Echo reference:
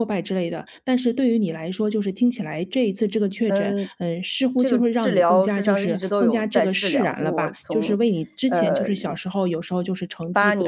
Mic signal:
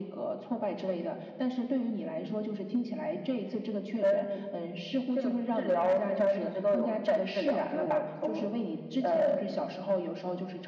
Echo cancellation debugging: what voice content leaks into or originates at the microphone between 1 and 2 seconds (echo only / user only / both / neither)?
echo only